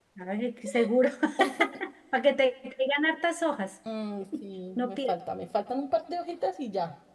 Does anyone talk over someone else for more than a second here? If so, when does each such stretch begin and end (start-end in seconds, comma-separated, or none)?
none